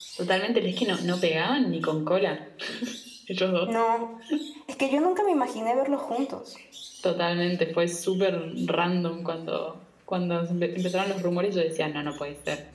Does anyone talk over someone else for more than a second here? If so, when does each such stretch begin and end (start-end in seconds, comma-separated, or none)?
none